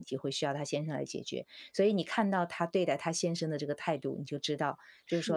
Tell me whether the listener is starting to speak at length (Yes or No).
No